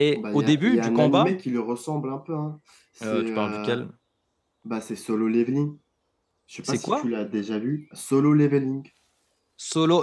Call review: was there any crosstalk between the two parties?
Yes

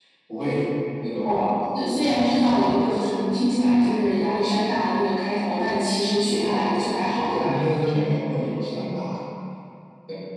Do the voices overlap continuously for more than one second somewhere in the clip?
No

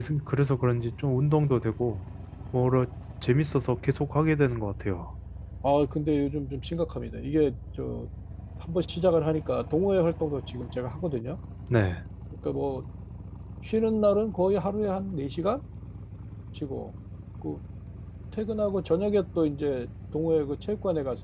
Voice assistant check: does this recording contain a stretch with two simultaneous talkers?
No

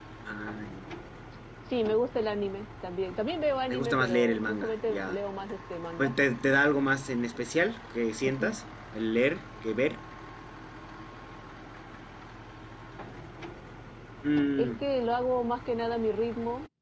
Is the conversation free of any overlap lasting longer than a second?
No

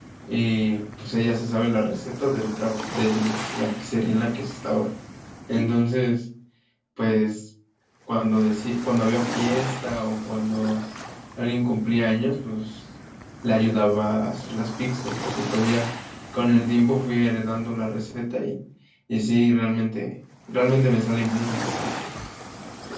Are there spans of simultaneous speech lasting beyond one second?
No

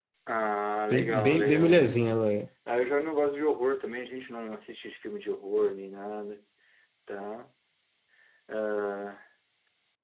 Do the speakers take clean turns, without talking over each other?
No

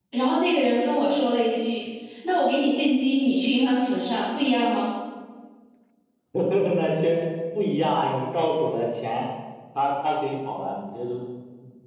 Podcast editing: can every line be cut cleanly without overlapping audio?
Yes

